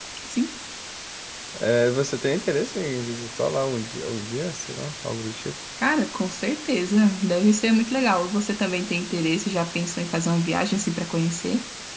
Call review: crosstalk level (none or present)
none